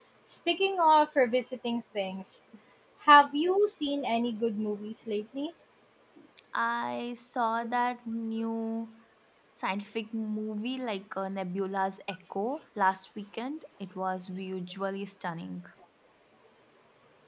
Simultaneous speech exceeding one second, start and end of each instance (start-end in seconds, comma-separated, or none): none